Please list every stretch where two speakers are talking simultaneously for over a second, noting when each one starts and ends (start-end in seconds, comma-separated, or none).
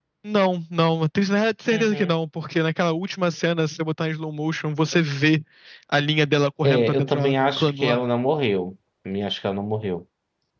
6.6-8.0